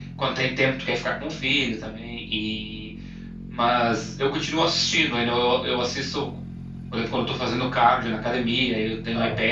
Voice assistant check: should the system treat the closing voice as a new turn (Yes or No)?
No